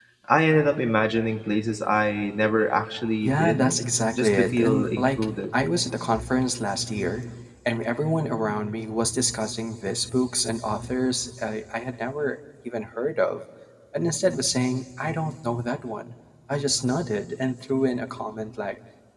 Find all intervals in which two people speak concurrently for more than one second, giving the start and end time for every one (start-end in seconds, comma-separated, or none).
4.2-5.5